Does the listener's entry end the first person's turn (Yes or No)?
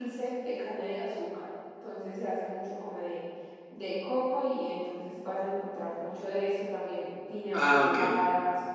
No